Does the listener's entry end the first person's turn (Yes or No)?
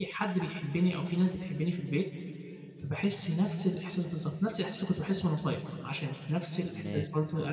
No